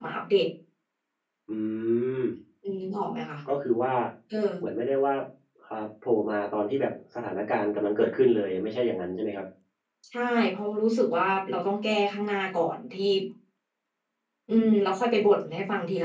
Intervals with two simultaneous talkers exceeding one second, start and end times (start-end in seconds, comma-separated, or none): none